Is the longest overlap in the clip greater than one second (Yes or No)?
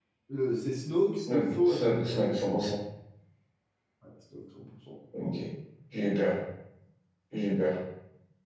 Yes